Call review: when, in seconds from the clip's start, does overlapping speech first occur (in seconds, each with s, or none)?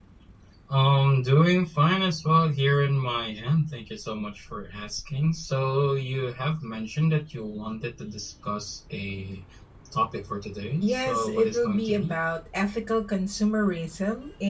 10.8 s